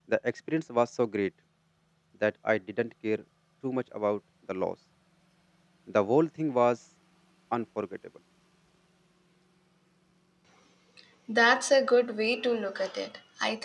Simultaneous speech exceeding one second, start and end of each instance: none

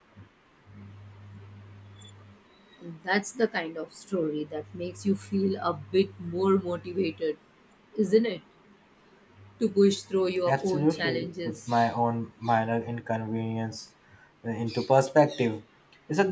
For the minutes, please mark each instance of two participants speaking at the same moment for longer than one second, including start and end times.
10.5-11.7

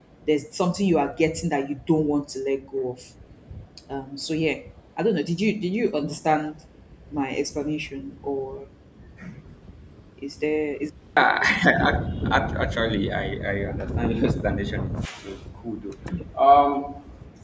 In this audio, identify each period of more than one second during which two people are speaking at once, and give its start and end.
none

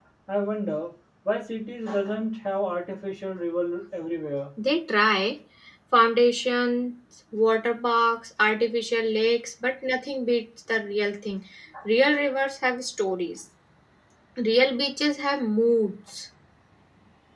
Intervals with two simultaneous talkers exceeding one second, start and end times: none

